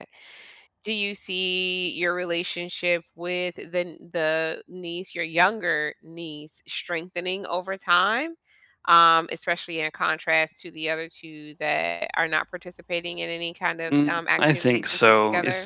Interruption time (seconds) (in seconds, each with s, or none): 13.9 s